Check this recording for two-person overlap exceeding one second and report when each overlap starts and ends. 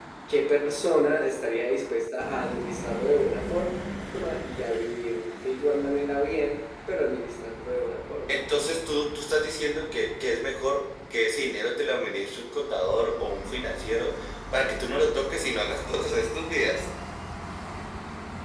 none

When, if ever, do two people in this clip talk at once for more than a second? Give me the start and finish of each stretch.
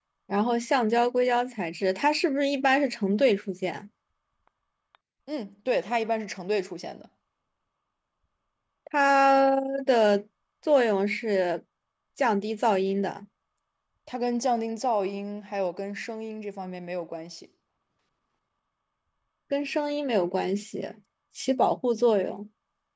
none

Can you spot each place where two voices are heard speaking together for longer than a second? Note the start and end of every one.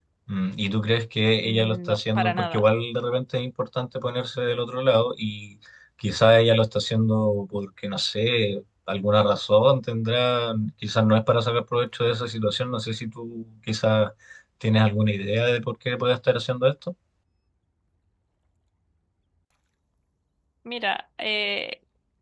1.4-2.6

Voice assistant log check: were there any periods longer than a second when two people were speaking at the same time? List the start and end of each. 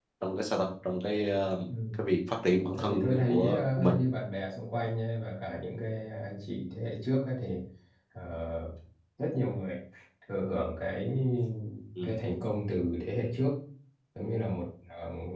2.8-4.0

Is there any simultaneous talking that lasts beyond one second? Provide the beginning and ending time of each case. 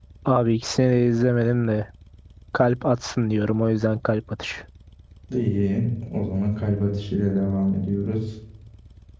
none

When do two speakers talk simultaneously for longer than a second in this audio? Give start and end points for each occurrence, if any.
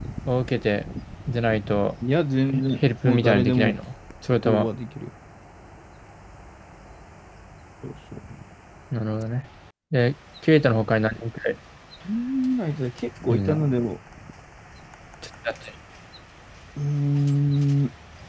2.5-3.7

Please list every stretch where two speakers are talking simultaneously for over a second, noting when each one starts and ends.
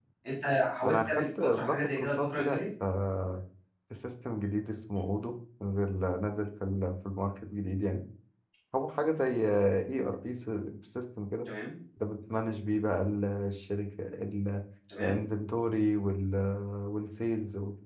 0.8-2.6

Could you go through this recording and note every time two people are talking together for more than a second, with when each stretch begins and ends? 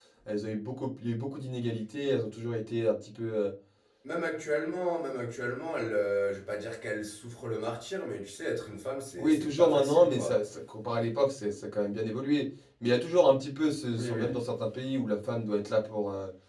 9.2-10.4

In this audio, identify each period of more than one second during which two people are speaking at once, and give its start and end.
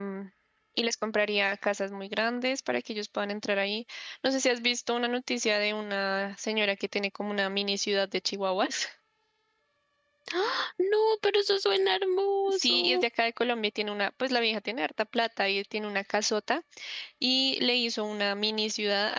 none

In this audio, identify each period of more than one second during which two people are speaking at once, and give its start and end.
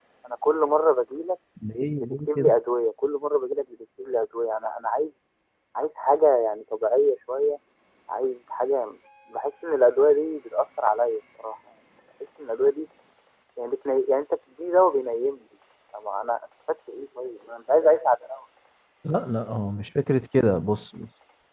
none

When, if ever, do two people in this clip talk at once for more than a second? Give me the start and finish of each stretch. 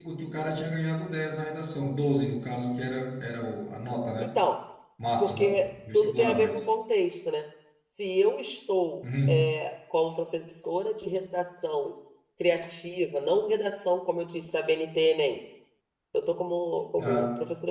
5.2-6.6

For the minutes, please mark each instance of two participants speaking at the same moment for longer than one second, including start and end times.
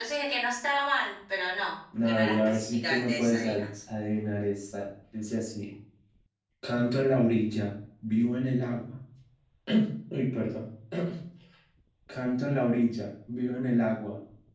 2.0-3.6

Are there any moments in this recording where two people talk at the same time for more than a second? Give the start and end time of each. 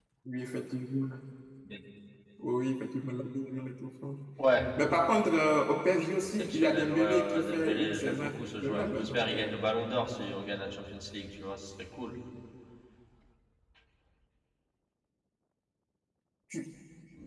6.2-9.6

